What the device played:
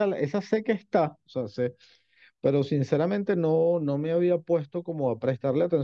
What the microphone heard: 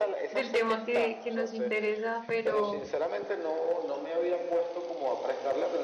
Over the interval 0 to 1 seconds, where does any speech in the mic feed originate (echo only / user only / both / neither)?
both